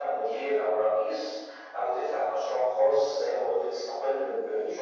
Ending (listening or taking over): listening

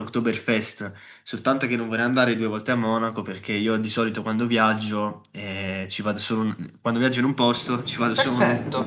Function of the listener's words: taking over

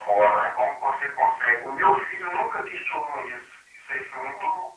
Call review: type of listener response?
listening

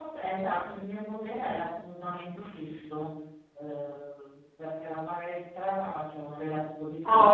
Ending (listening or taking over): listening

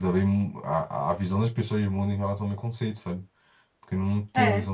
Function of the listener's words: taking over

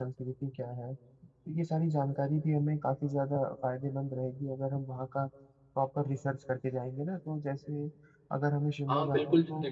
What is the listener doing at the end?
taking over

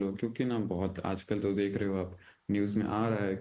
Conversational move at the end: listening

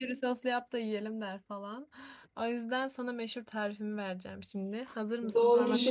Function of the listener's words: taking over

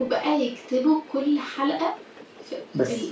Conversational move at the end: taking over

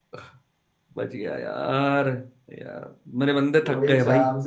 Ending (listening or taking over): taking over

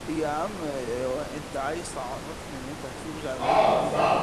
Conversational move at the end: taking over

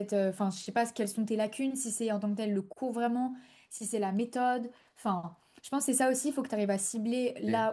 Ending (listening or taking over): listening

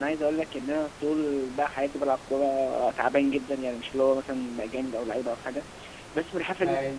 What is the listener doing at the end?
listening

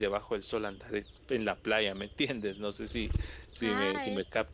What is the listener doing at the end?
taking over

